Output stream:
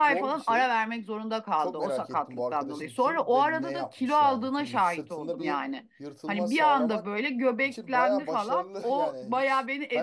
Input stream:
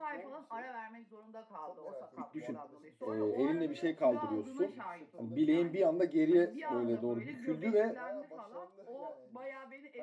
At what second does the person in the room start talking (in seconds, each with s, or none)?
2.2 s